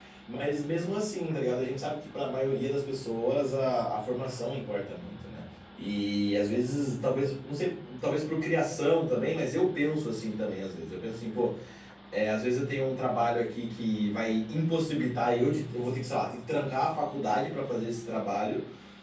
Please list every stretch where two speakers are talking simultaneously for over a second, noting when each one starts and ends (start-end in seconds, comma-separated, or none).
none